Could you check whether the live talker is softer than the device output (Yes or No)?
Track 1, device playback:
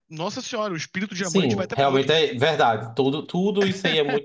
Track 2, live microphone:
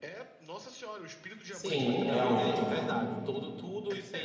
No